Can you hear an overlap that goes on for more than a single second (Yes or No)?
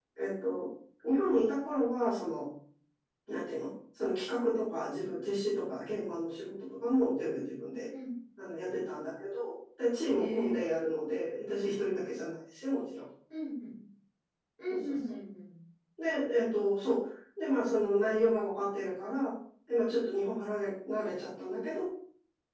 No